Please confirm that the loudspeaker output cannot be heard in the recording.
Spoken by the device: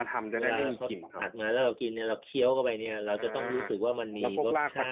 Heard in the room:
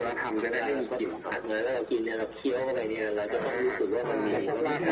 No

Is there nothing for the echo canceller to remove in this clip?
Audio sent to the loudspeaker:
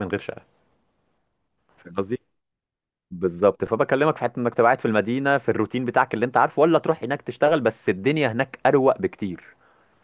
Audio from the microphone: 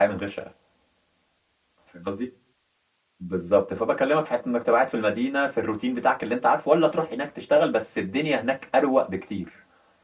No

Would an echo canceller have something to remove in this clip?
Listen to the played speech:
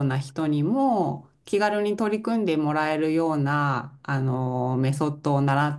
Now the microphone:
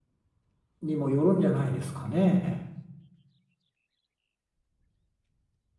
No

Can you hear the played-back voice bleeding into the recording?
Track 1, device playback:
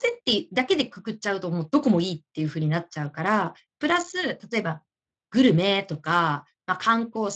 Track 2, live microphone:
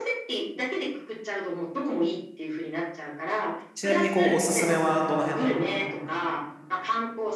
Yes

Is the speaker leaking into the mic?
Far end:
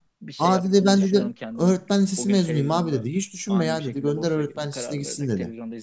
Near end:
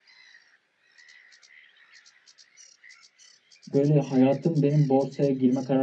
No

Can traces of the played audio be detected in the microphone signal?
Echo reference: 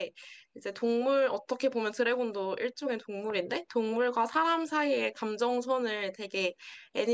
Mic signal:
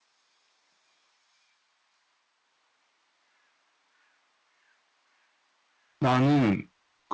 No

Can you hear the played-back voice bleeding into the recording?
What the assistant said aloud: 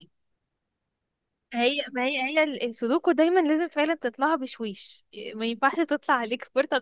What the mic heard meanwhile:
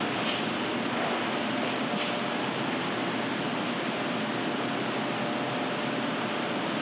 No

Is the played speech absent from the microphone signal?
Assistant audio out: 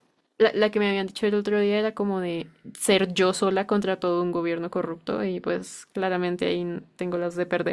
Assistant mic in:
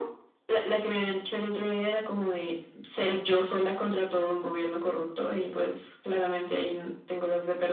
No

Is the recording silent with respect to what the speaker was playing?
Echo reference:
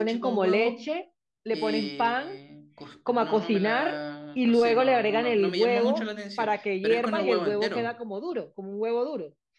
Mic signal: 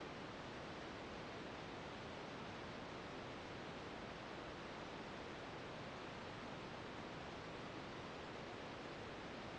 Yes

